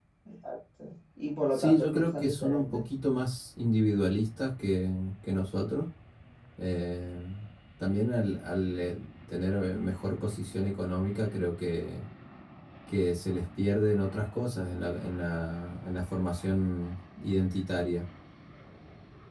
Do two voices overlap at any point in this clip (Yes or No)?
Yes